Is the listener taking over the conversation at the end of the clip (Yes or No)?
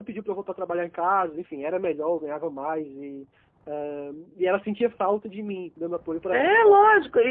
Yes